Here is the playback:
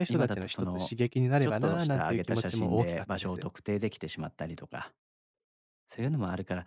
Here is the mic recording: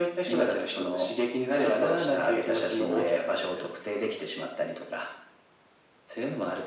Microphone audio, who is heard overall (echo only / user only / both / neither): echo only